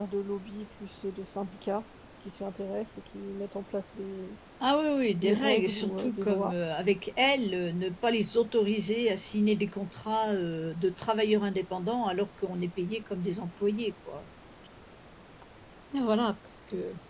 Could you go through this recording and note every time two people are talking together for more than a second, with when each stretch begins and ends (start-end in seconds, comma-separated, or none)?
5.2-6.5